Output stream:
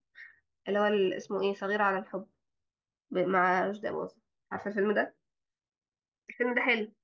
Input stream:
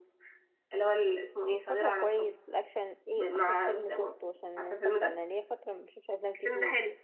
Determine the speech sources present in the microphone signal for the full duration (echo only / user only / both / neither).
both